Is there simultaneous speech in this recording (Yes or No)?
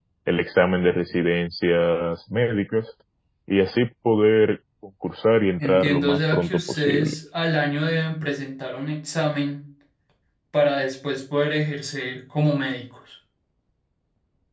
Yes